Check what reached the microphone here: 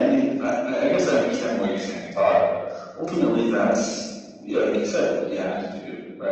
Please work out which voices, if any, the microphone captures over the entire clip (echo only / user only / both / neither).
echo only